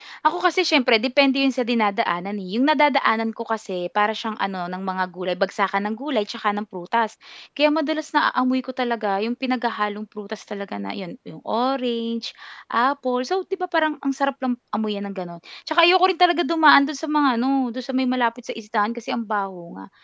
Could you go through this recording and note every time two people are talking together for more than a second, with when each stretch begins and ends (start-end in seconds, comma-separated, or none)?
none